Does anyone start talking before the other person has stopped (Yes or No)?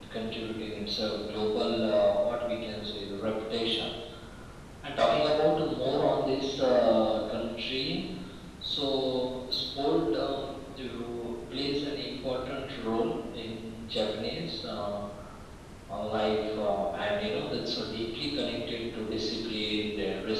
No